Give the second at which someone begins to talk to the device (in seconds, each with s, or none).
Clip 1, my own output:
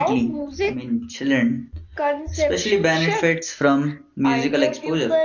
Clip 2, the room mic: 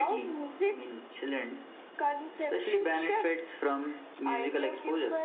none